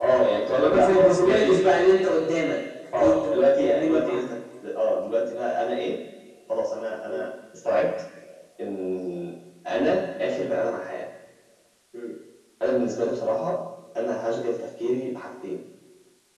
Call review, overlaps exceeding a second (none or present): present